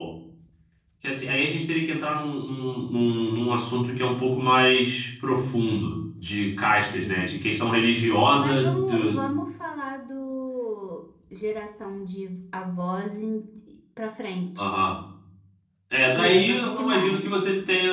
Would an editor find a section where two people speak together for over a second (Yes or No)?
Yes